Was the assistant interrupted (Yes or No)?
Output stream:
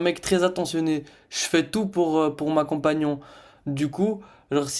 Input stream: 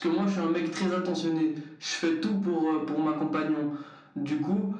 No